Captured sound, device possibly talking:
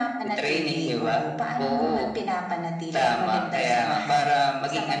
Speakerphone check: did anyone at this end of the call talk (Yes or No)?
No